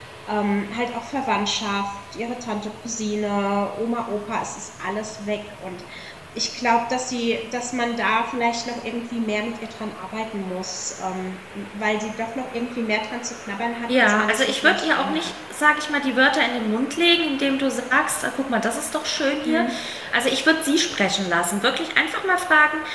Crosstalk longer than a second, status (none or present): present